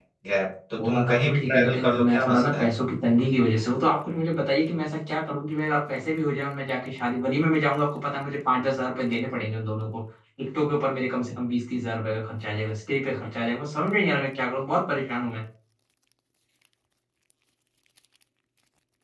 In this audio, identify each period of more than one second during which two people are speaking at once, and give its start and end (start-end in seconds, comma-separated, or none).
0.8-2.7